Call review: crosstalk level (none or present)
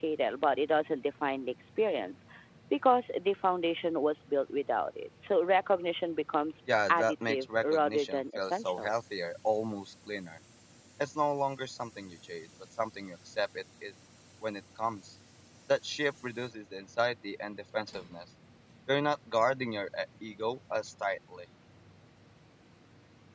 present